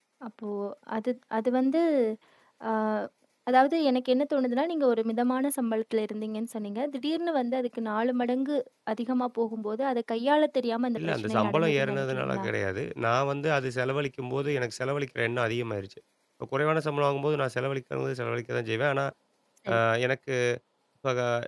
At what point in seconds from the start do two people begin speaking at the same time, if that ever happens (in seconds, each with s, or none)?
11.0 s